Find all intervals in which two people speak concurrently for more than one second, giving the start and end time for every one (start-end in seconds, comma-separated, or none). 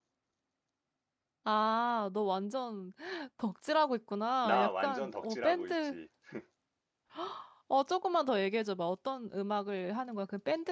4.4-6.0